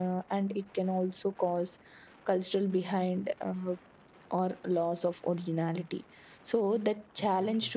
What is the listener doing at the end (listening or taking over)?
listening